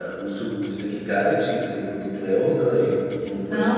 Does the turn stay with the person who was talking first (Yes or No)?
No